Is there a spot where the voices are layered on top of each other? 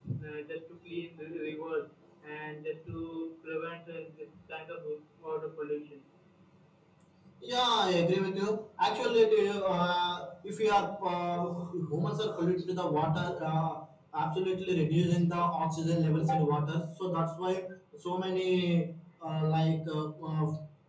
No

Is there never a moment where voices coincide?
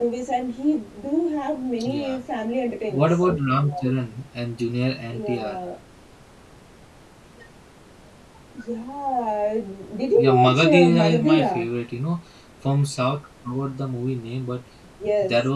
No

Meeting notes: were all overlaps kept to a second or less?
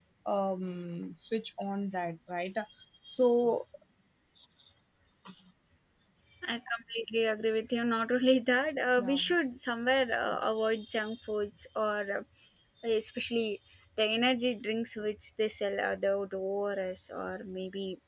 Yes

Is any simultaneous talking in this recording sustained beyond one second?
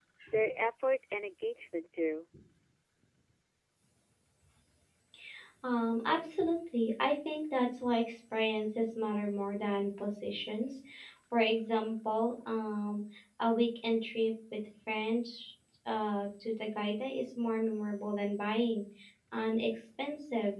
No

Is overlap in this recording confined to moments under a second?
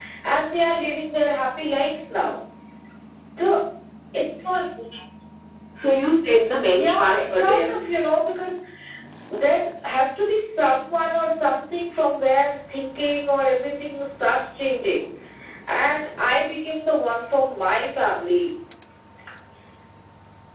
No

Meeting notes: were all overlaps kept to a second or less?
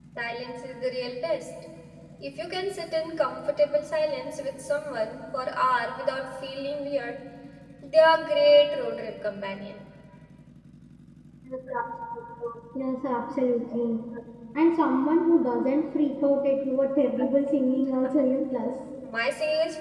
Yes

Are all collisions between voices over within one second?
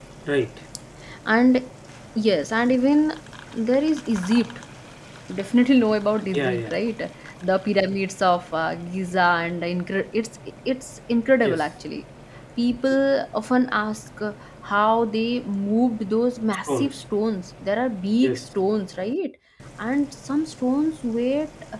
Yes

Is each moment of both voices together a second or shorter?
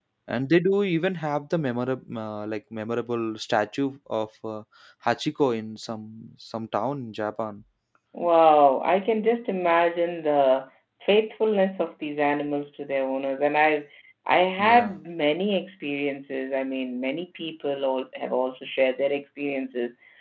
Yes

